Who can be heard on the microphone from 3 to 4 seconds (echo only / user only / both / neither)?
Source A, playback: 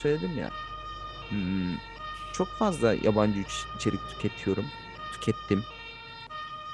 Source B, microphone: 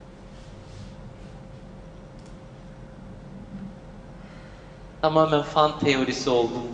neither